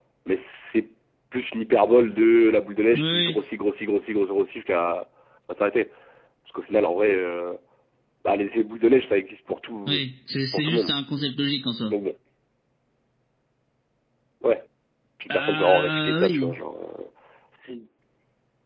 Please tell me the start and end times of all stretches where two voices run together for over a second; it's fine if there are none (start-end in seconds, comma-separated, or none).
15.3-16.6